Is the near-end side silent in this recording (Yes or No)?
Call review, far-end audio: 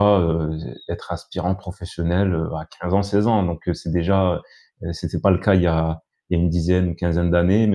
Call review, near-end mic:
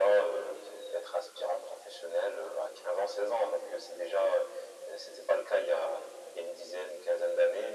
Yes